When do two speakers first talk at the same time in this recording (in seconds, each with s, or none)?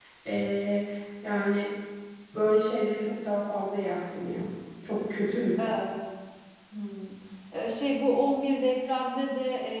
none